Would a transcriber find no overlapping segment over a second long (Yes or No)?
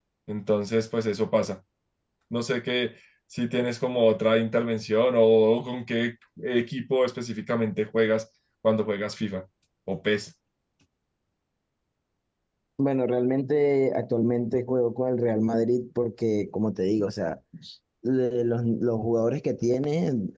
Yes